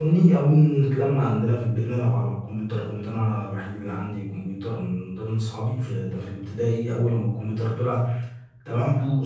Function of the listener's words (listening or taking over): listening